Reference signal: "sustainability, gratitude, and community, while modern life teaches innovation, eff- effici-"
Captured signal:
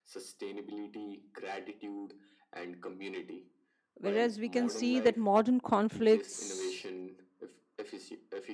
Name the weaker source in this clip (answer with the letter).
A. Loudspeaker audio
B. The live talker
A